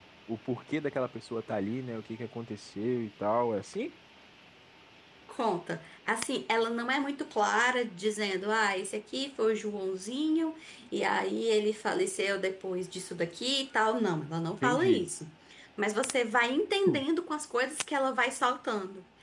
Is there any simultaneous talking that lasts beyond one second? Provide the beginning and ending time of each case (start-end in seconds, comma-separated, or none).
none